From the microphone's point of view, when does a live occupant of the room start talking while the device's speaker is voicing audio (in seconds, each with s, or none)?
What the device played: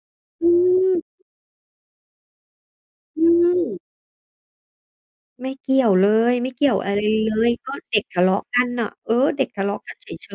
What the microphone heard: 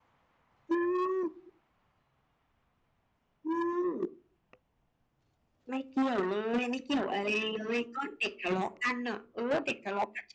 none